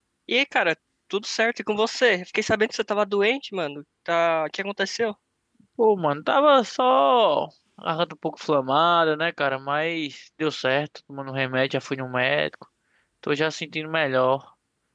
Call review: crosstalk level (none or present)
none